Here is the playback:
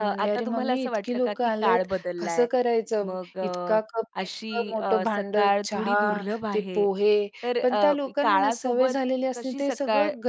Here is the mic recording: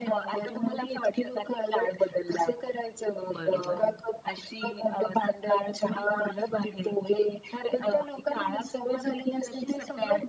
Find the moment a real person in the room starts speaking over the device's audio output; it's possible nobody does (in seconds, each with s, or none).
3.4 s